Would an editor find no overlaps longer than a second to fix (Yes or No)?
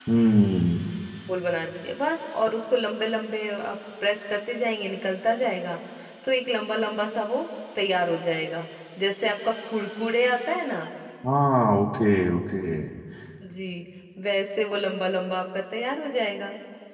Yes